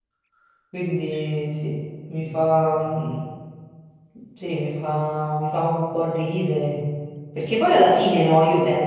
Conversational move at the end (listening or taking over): listening